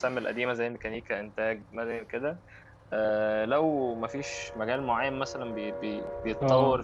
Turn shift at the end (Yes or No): No